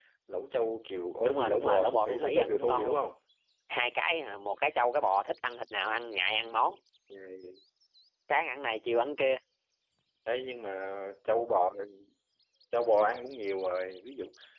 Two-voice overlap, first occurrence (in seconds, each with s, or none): 1.2 s